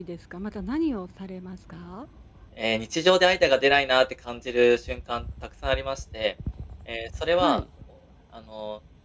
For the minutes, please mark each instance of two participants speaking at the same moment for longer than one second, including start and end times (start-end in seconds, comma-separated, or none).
none